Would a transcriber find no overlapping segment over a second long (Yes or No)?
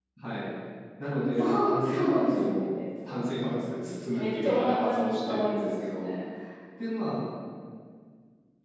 No